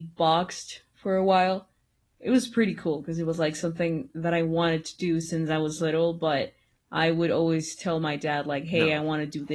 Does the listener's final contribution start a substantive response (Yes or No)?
No